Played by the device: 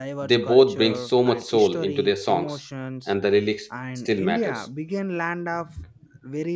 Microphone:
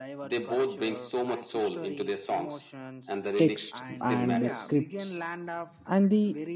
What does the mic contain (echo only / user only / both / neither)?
both